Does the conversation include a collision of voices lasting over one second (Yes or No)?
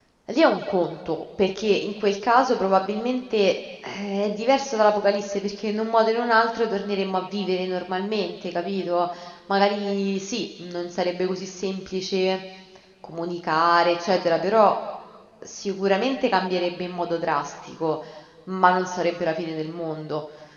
No